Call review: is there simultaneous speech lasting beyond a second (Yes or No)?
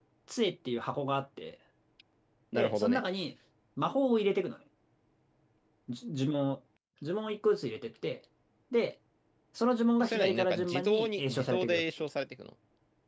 Yes